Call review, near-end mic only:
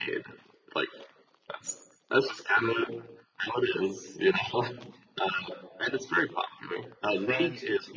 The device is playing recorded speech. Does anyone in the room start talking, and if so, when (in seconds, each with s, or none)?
7.0 s